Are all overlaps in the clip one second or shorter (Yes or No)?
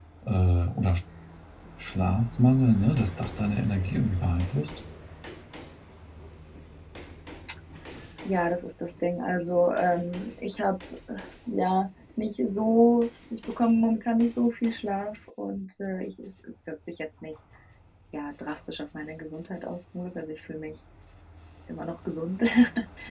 Yes